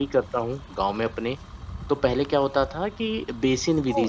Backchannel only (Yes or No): Yes